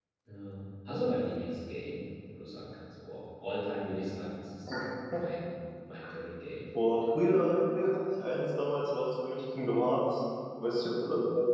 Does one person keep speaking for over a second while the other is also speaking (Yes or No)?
No